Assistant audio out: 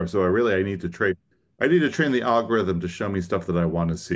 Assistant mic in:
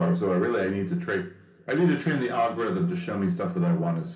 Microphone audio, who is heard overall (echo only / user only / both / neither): echo only